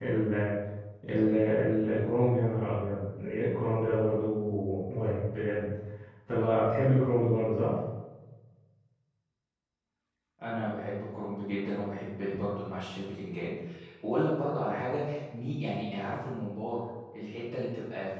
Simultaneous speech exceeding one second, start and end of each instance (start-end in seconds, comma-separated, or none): none